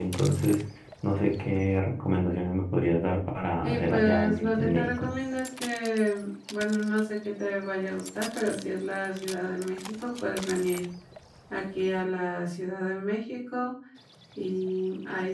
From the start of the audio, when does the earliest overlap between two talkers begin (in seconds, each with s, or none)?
3.6 s